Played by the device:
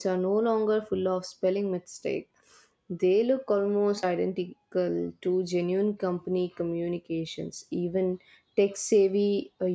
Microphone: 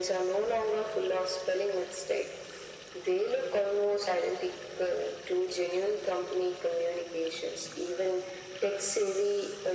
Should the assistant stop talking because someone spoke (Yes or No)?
No